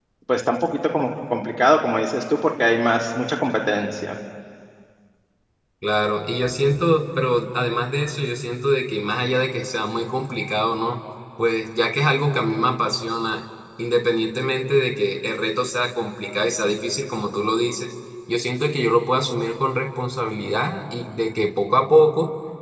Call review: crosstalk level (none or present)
none